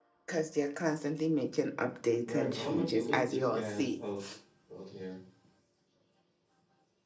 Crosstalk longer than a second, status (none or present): present